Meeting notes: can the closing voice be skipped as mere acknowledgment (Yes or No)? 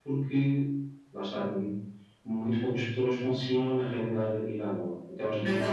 No